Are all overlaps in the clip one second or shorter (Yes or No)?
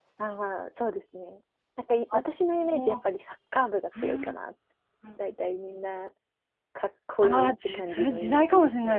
No